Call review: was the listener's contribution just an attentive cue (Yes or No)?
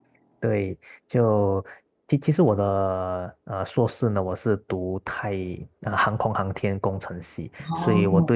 Yes